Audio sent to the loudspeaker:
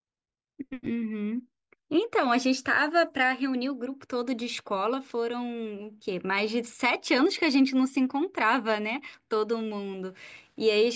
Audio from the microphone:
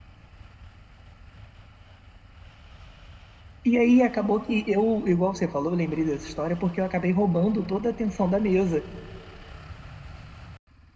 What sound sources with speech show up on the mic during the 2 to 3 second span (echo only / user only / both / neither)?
neither